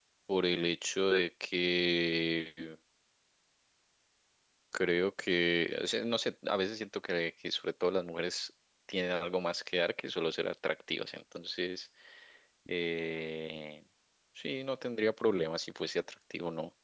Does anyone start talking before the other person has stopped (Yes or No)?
No